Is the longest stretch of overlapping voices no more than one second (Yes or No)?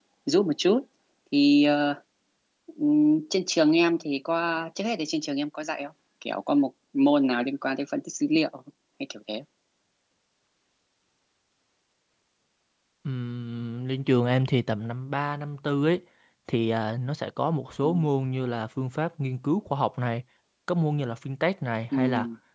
Yes